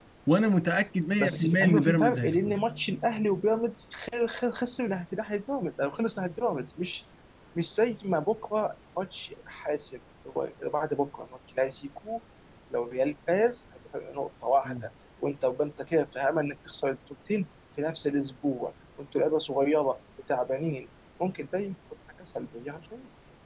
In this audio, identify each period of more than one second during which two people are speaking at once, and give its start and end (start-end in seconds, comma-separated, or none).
1.1-2.6